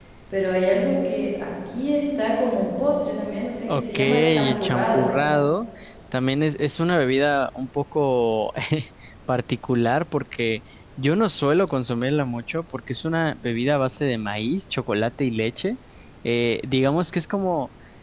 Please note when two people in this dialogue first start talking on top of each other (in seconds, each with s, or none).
3.7 s